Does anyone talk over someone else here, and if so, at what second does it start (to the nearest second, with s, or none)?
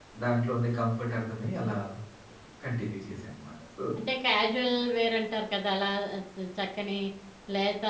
none